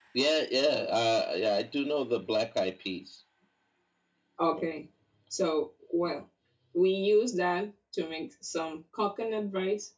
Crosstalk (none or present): none